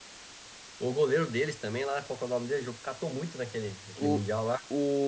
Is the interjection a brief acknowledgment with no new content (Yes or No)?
No